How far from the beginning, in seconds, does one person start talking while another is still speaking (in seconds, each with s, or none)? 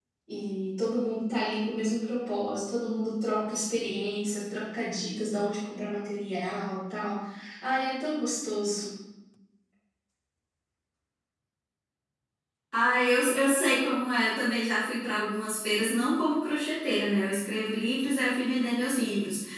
none